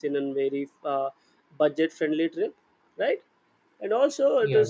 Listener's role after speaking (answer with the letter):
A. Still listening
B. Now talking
A